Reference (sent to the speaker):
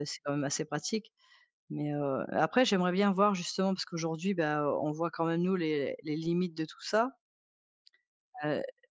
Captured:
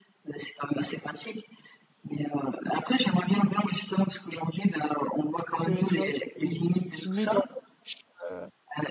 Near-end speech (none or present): present